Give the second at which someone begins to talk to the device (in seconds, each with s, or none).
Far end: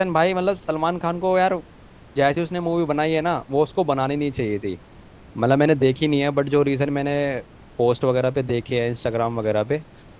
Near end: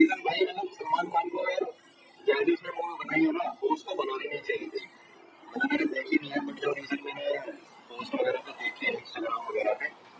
none